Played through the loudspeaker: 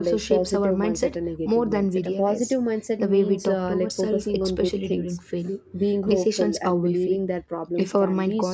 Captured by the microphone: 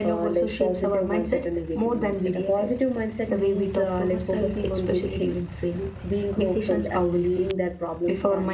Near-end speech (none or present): none